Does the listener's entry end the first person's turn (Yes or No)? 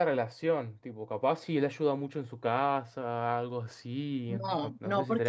Yes